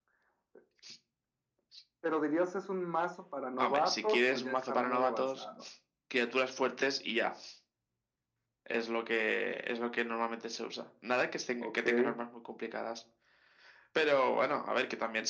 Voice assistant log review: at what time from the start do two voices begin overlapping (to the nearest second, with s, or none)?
4 s